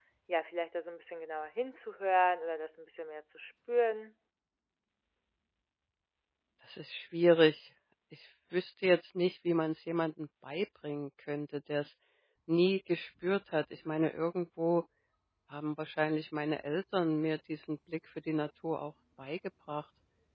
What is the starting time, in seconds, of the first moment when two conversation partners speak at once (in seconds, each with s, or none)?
none